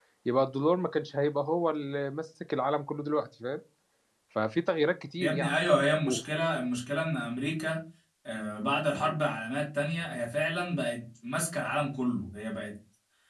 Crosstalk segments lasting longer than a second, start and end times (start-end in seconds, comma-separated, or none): none